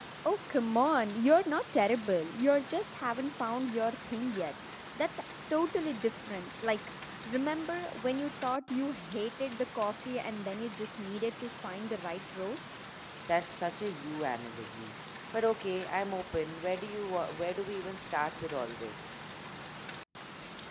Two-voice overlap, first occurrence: none

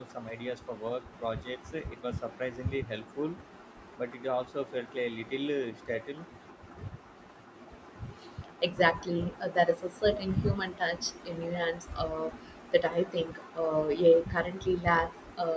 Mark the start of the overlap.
none

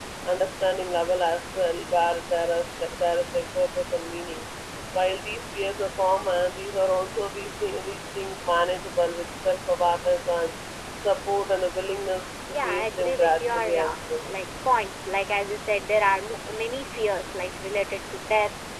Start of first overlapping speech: 12.5 s

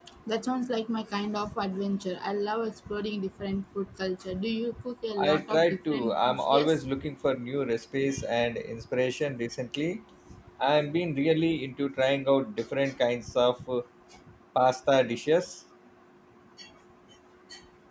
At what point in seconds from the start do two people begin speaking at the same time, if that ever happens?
5.2 s

